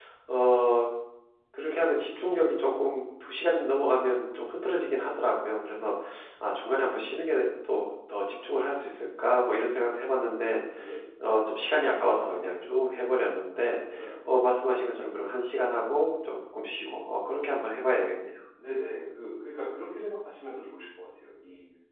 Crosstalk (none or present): none